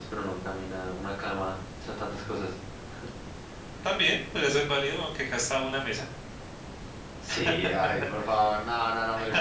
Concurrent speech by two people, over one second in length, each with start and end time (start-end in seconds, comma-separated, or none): none